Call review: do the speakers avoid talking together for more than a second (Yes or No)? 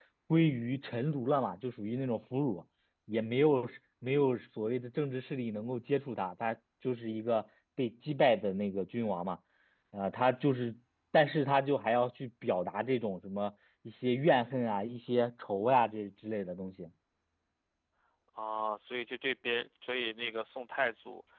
Yes